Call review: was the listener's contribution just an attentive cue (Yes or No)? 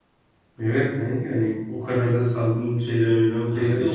No